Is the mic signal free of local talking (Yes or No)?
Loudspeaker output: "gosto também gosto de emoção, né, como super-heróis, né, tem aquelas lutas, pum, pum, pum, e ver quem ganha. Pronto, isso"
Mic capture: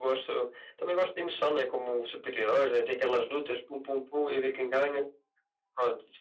Yes